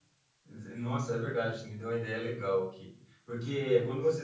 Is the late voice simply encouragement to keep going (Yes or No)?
Yes